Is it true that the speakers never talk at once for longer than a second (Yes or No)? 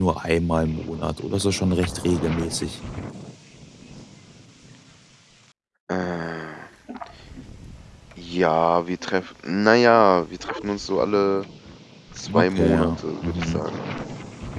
No